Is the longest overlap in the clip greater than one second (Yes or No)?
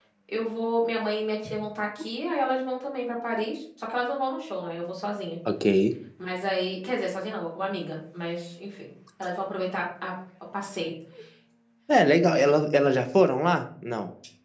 No